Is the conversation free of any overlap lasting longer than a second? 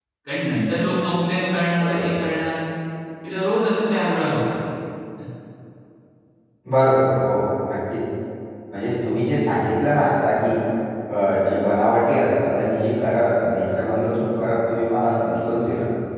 Yes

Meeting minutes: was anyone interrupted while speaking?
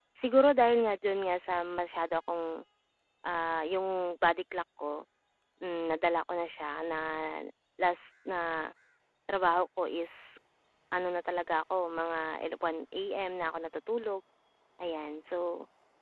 No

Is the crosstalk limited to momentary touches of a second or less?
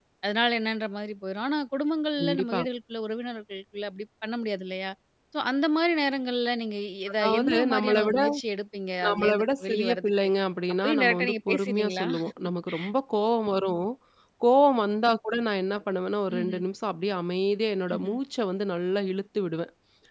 No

